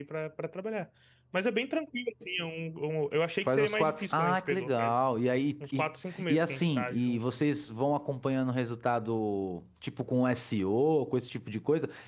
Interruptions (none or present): present